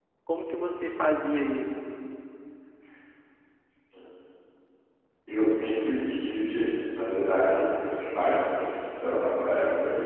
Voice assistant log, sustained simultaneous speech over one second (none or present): none